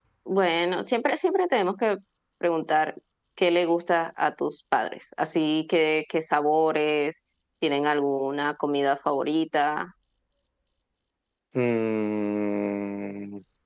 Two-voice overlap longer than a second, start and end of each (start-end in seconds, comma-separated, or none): none